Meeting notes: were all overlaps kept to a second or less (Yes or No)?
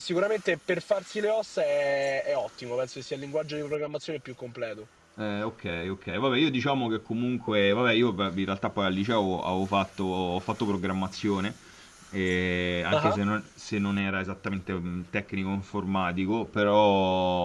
Yes